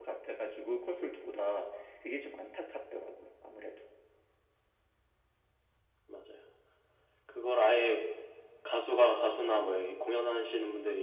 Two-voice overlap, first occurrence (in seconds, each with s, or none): none